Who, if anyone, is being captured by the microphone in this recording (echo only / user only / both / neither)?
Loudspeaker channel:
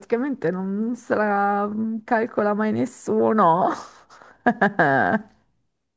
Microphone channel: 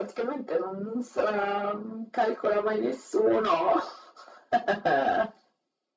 echo only